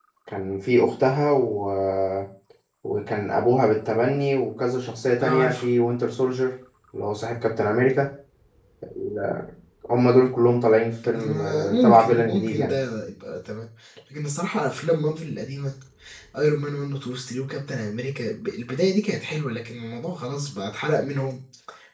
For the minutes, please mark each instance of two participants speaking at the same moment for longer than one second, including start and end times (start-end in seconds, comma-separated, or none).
11.1-12.7